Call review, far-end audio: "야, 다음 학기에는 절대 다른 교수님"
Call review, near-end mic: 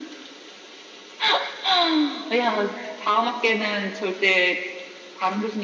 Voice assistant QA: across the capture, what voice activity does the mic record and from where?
echo only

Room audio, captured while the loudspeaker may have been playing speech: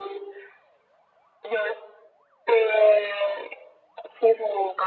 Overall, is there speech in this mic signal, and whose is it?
echo only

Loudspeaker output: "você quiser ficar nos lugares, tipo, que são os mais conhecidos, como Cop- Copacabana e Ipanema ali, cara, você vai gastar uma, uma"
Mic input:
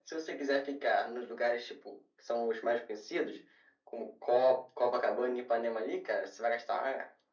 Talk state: echo only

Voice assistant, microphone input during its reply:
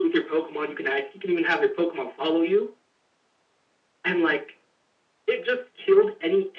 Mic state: echo only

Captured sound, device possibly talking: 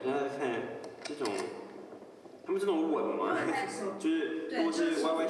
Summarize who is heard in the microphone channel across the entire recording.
both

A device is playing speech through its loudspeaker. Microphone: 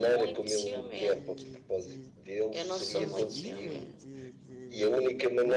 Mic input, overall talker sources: both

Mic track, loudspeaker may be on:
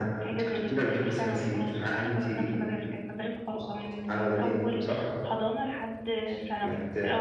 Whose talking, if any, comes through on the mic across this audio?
both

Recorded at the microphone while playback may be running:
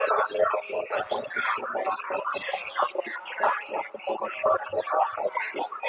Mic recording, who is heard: echo only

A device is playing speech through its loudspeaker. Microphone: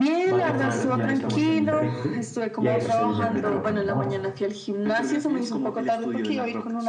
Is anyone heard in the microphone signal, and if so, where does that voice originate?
both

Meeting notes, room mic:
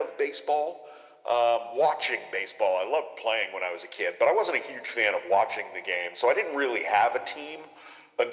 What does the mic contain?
echo only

